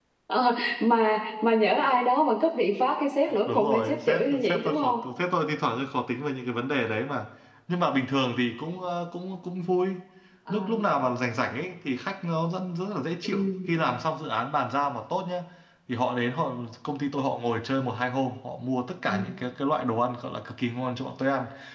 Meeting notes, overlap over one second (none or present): present